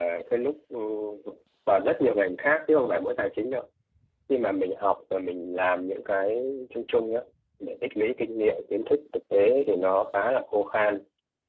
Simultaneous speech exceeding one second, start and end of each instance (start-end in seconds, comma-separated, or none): none